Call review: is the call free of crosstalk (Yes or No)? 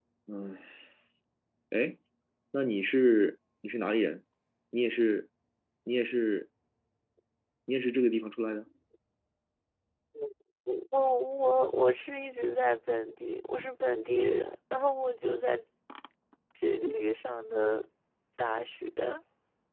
Yes